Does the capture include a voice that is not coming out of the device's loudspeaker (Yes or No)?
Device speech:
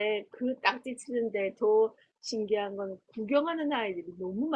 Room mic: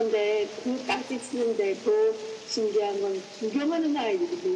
No